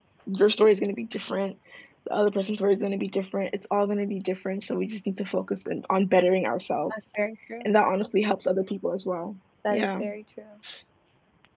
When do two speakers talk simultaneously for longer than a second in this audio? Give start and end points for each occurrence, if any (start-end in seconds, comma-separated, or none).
none